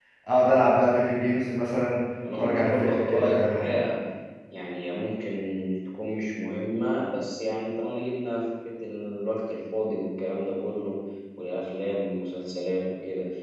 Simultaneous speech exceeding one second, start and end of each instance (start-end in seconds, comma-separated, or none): 2.4-3.8